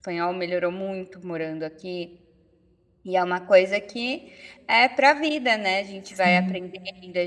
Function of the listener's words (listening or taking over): listening